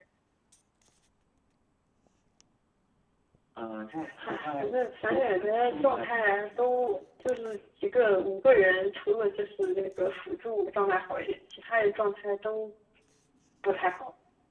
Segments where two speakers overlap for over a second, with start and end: 4.3-6.7

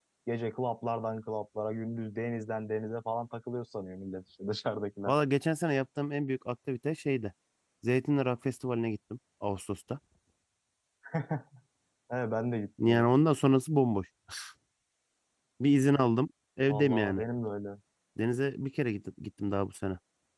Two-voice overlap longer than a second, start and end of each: none

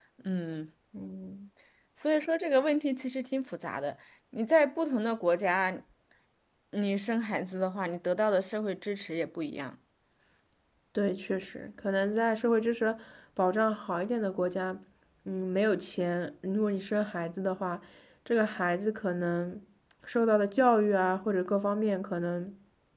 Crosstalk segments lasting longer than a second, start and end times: none

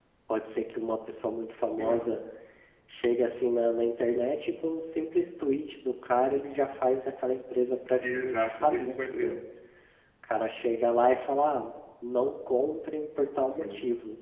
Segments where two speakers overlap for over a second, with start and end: 8.0-9.3

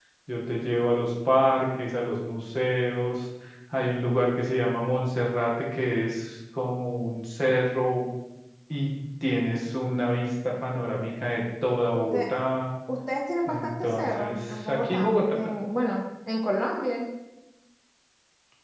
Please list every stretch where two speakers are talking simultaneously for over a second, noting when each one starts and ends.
13.5-15.1

